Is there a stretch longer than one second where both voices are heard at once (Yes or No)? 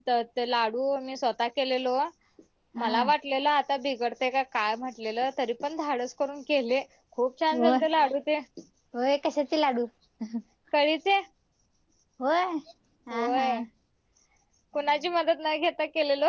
No